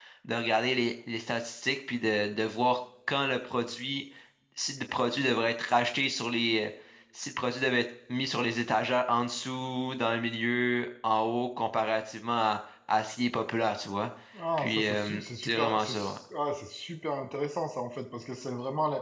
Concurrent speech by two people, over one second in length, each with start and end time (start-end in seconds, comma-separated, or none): 14.6-16.2